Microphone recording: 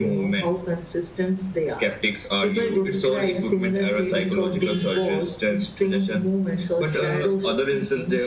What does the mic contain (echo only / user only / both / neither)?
echo only